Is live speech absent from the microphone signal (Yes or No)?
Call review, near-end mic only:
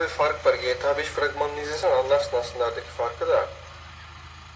Yes